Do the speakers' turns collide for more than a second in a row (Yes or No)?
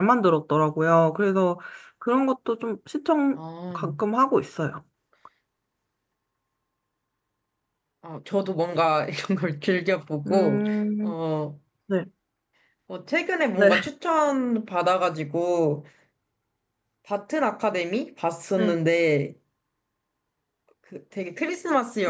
No